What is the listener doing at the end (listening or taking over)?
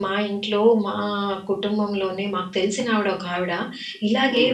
listening